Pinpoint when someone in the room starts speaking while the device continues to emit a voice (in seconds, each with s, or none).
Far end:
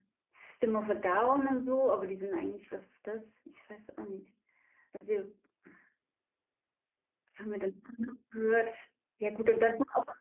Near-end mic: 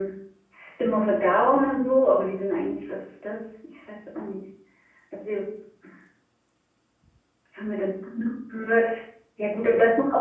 none